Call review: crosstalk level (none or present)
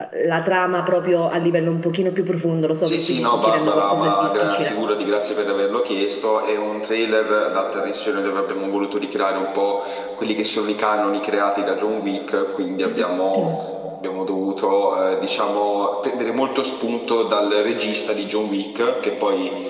present